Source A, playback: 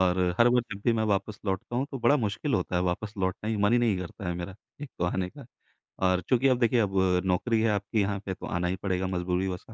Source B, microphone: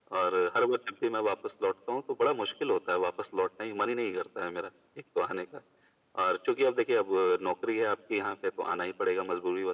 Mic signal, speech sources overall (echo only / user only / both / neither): echo only